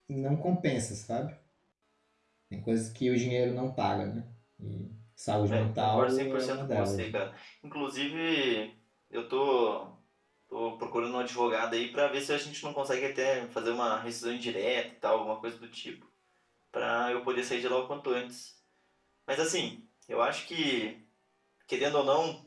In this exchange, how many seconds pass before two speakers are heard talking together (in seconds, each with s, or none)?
5.5 s